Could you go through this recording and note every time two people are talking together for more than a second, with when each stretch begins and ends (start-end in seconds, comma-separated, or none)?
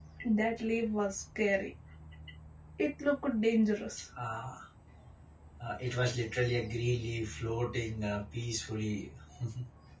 none